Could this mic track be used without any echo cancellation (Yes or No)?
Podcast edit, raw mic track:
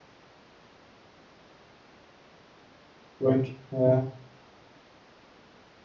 Yes